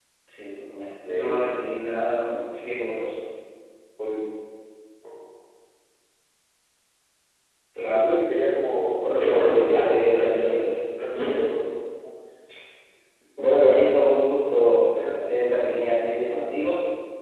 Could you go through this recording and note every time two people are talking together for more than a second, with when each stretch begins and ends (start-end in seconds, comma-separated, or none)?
9.1-10.6